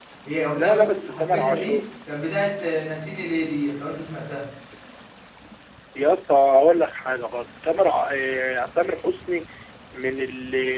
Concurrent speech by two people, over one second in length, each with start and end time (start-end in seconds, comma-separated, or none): 0.5-1.9